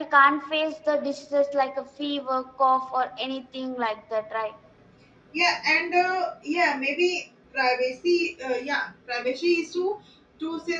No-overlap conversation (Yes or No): Yes